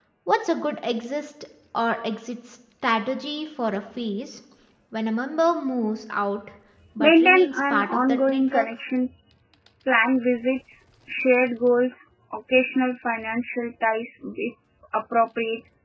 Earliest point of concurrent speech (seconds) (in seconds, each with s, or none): 7.0 s